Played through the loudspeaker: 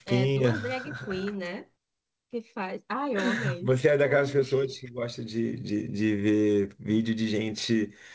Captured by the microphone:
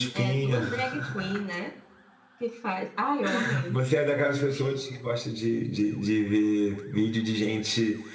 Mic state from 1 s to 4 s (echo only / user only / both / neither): echo only